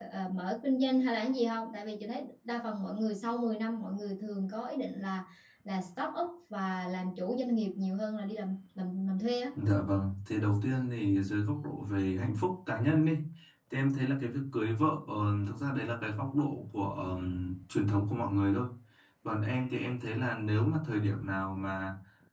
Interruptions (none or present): none